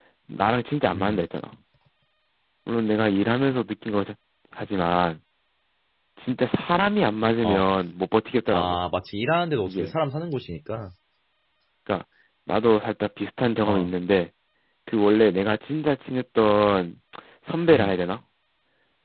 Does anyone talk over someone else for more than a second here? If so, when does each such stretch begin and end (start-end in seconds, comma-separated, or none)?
none